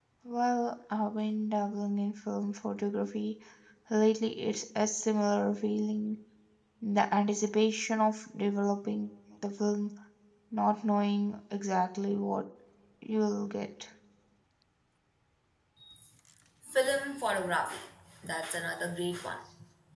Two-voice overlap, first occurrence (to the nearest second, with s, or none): none